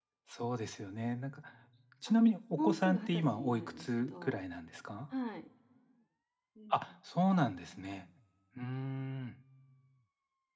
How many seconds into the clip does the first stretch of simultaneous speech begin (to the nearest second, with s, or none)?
3 s